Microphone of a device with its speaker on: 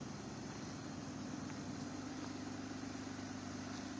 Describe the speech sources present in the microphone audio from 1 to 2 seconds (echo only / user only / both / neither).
neither